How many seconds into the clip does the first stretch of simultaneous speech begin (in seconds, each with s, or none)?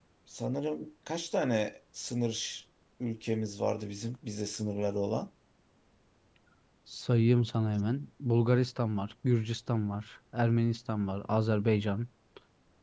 none